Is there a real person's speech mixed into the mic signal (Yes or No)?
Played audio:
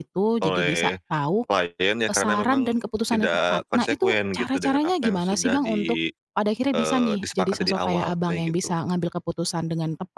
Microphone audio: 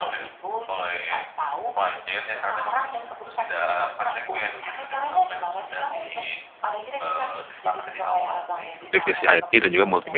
Yes